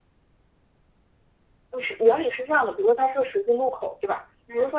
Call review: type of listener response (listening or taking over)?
listening